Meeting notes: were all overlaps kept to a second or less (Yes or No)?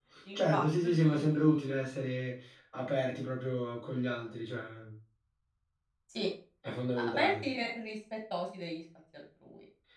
No